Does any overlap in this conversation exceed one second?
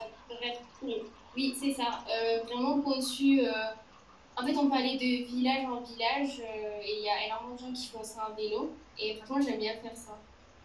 No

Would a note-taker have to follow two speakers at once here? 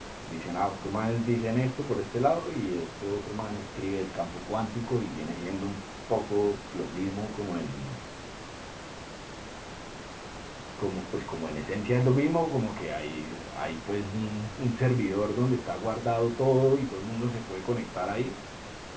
No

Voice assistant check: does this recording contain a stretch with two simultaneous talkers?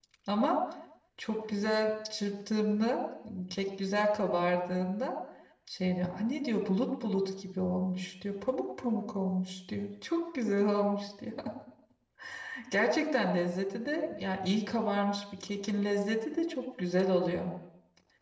No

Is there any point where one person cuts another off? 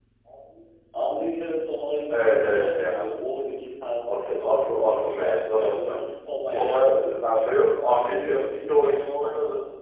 Yes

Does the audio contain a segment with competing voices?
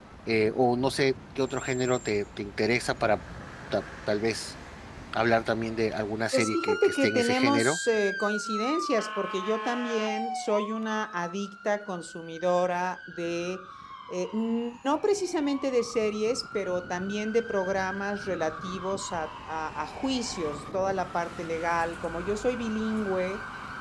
Yes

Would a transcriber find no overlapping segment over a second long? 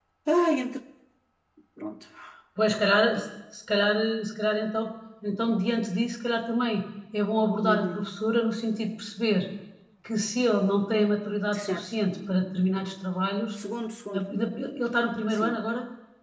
Yes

